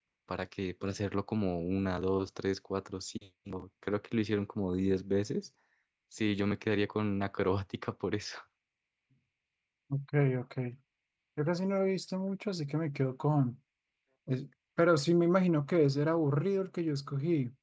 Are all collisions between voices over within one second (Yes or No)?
Yes